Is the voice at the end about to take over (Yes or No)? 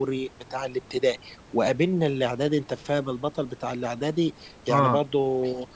No